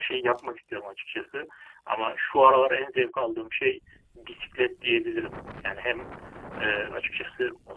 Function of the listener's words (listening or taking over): listening